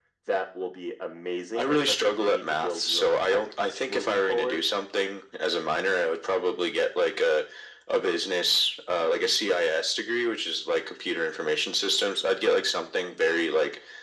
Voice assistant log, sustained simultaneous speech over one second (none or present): present